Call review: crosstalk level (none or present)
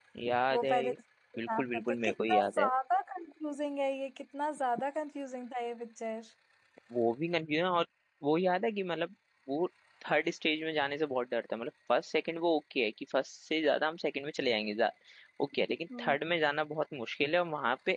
present